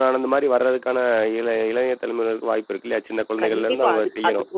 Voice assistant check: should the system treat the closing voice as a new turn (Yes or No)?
Yes